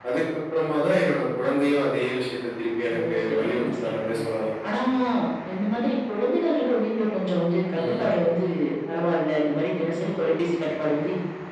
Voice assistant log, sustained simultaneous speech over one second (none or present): present